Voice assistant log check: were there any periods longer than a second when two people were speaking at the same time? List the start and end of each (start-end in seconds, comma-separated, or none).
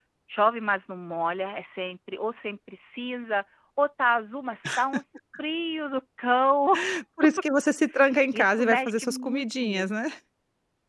8.3-9.9